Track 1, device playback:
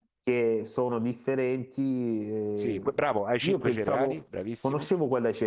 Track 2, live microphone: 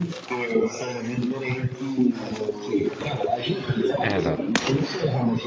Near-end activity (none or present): present